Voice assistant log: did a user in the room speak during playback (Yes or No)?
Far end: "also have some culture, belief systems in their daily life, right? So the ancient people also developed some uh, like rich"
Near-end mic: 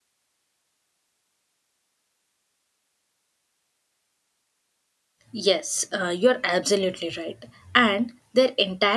Yes